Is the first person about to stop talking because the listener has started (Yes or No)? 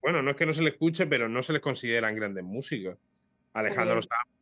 No